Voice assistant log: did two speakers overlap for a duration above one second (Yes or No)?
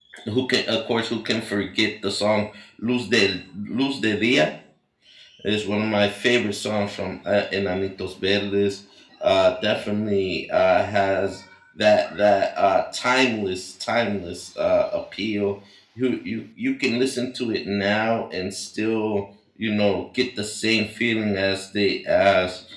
No